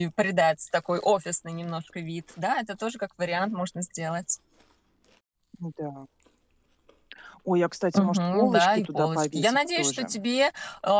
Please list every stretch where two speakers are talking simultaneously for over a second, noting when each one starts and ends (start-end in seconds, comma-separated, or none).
8.0-10.2